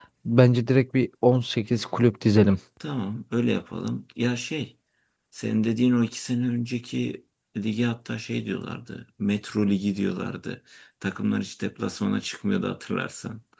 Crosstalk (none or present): none